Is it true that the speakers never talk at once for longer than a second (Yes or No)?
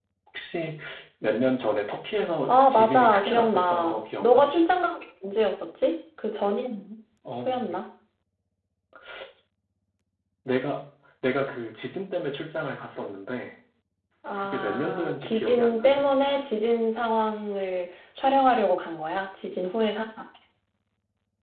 No